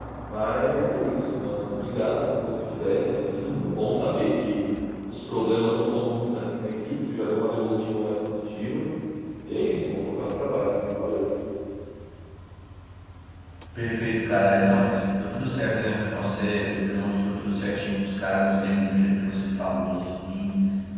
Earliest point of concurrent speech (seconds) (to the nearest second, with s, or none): none